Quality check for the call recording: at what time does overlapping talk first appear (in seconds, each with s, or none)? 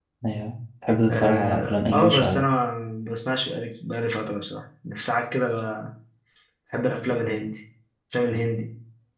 1.1 s